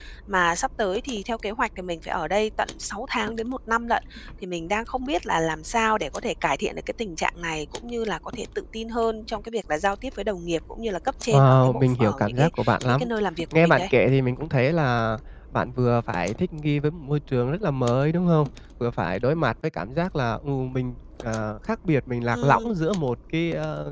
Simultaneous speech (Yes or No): Yes